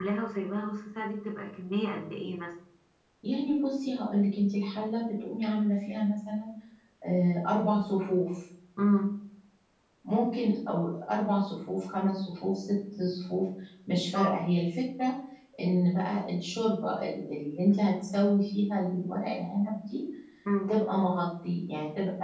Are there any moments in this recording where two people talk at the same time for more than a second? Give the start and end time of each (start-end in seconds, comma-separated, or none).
none